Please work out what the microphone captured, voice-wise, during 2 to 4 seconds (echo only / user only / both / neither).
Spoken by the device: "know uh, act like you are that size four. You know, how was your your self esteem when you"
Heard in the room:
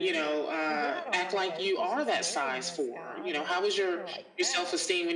both